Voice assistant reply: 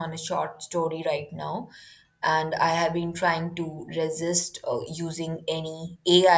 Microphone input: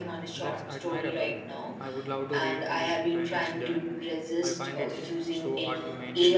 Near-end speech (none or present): present